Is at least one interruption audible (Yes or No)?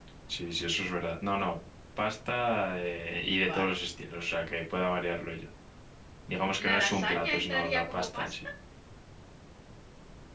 Yes